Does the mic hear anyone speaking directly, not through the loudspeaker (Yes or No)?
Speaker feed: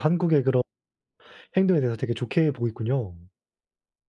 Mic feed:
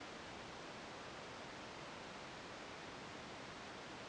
No